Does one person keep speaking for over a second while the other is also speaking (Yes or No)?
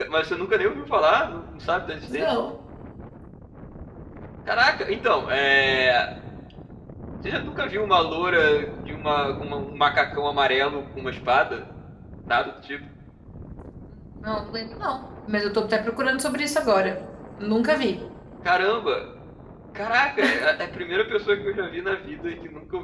No